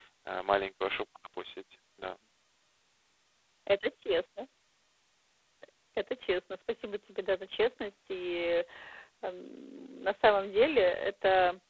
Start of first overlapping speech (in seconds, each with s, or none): none